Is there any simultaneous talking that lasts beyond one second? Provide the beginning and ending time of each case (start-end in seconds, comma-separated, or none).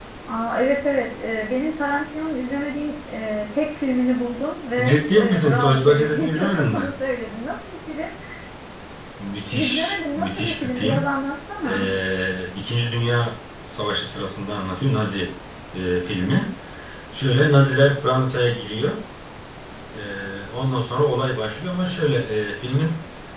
4.9-6.9, 9.5-11.1